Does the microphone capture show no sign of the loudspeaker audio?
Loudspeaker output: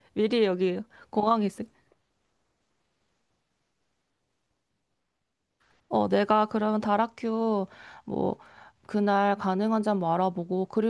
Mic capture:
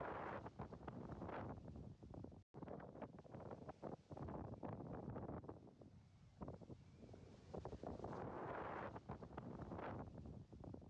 Yes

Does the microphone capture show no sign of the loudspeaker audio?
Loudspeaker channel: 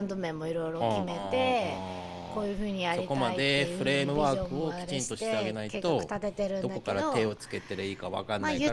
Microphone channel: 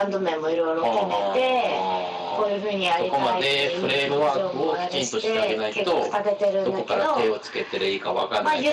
No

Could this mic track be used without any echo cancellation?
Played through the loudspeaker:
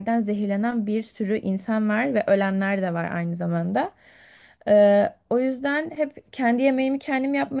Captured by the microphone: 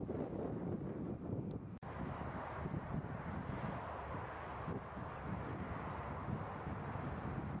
Yes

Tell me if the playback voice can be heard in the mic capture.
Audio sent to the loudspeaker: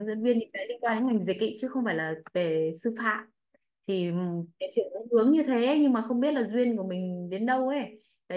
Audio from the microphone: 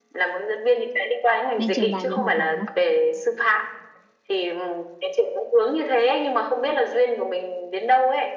Yes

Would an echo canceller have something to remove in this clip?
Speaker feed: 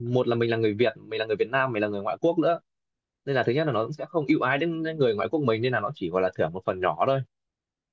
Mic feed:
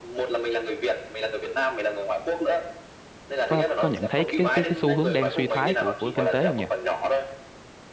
Yes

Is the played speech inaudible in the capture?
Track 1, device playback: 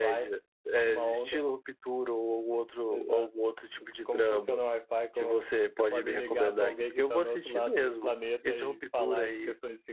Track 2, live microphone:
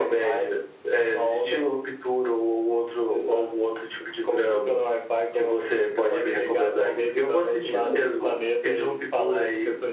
No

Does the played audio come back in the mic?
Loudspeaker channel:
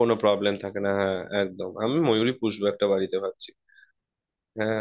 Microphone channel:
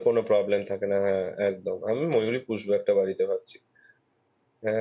Yes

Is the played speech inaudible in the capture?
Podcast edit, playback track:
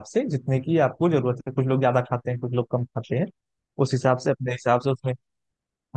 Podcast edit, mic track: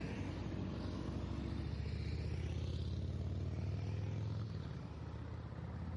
Yes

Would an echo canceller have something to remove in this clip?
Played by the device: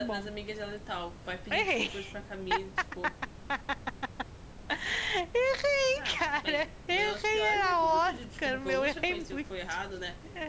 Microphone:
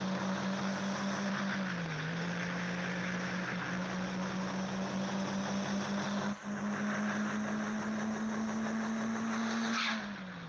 No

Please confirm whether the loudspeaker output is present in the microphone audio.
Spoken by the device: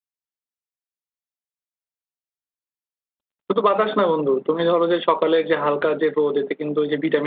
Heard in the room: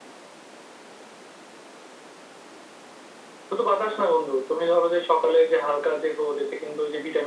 Yes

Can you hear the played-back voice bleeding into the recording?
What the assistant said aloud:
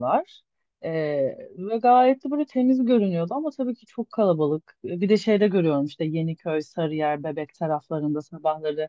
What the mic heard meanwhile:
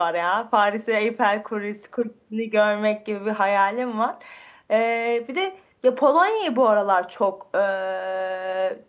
No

